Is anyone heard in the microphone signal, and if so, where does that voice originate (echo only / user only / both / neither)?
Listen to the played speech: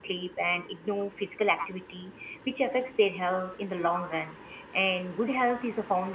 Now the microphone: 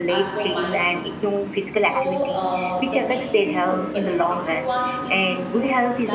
both